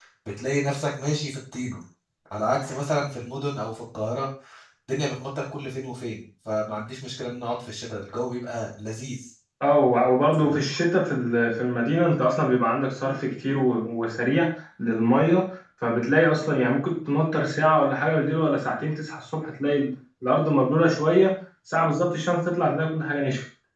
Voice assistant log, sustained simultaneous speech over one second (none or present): none